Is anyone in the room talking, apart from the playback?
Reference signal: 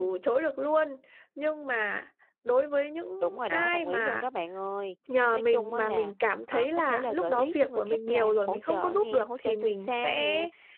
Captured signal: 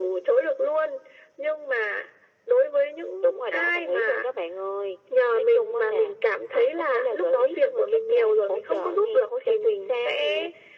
No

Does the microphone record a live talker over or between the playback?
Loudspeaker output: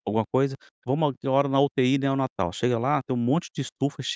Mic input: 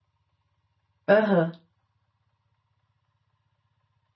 Yes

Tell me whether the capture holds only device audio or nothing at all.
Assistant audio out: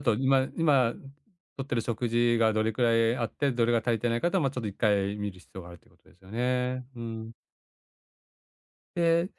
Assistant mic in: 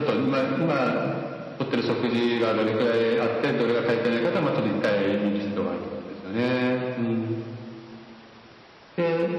Yes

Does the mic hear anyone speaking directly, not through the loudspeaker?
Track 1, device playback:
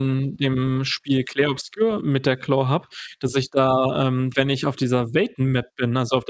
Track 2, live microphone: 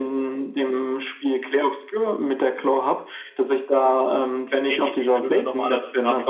Yes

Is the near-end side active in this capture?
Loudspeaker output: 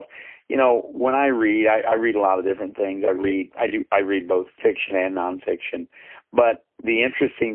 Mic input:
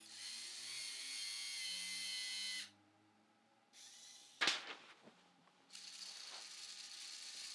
No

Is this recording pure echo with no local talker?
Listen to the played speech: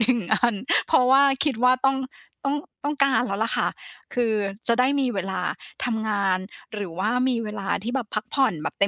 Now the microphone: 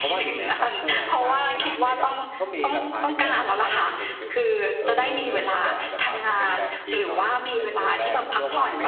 No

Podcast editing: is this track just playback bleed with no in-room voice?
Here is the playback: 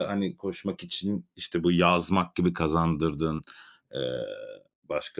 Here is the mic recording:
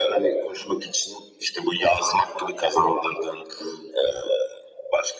Yes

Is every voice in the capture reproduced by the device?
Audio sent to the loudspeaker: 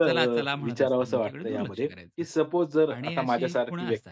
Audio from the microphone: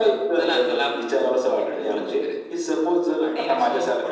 Yes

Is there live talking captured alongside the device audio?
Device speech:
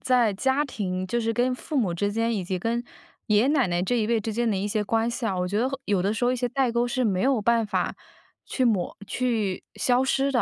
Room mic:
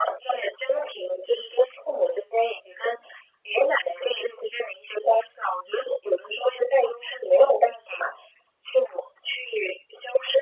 No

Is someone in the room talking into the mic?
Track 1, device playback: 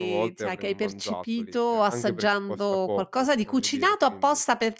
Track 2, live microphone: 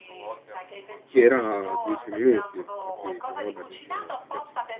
Yes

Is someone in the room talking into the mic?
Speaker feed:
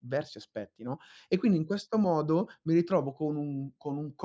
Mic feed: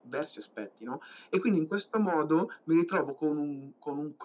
No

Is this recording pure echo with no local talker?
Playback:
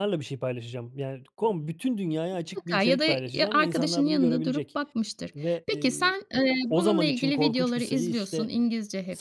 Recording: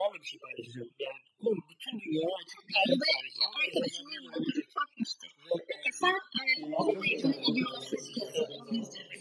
No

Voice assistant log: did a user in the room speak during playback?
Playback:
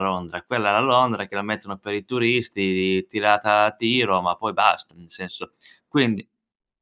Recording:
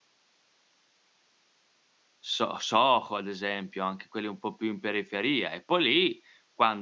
Yes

